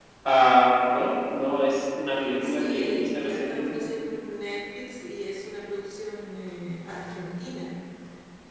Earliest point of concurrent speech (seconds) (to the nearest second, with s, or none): 2 s